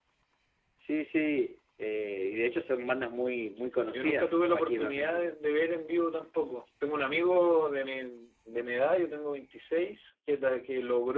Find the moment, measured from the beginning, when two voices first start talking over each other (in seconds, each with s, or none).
3.9 s